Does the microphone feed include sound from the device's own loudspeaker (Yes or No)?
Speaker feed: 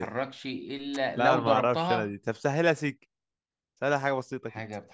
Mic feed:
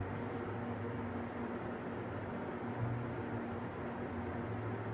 No